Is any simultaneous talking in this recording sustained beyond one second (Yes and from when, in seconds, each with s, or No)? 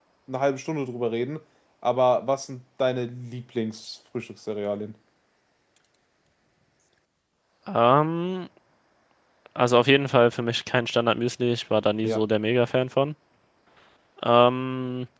No